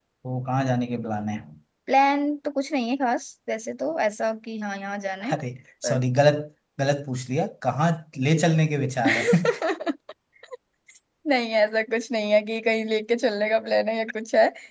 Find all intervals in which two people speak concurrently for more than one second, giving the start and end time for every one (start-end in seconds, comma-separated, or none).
none